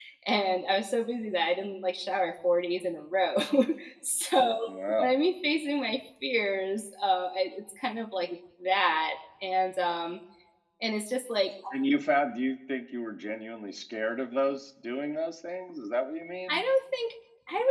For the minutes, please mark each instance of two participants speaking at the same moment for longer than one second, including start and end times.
none

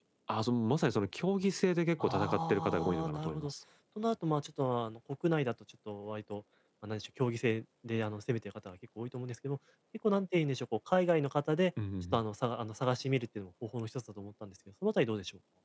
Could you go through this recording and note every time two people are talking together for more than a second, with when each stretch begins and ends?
2.0-3.5

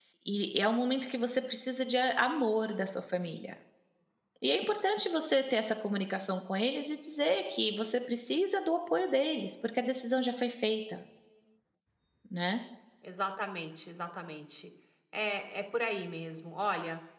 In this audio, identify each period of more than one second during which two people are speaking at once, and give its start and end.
none

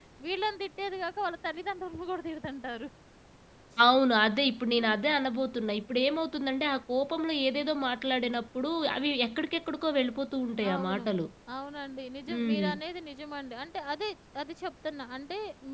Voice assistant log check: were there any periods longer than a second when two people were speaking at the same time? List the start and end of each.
none

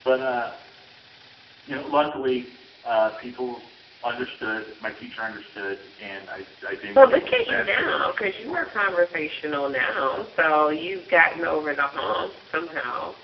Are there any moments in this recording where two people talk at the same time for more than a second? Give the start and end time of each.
7.0-8.7

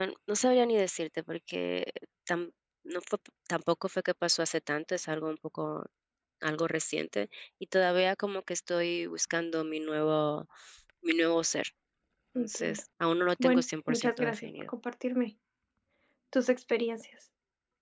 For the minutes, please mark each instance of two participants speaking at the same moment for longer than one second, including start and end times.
13.4-14.7

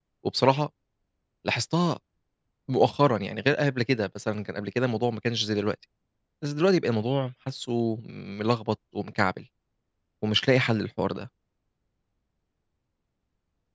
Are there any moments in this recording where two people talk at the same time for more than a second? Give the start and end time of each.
none

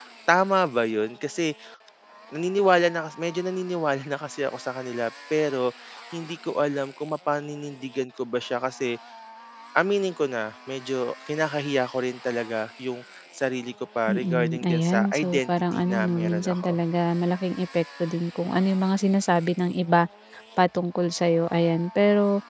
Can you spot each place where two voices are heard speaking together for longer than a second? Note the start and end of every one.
14.1-16.8

